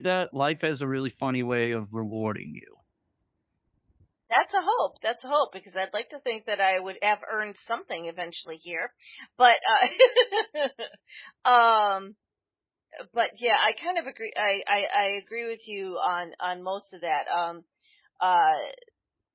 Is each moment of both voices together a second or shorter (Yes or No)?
Yes